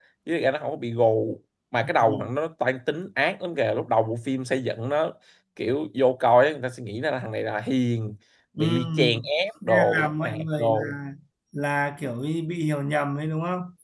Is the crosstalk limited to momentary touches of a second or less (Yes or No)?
No